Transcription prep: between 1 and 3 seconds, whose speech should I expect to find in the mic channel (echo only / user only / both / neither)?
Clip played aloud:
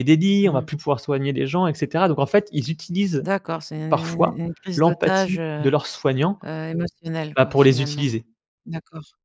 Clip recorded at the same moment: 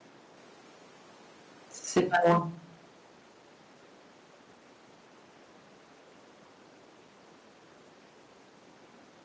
user only